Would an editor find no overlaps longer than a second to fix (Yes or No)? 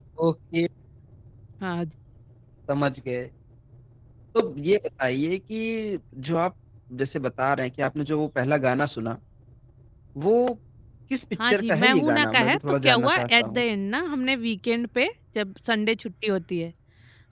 No